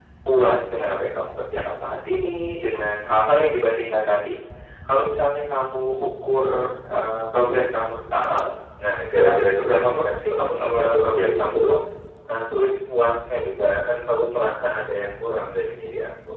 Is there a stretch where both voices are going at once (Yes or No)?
Yes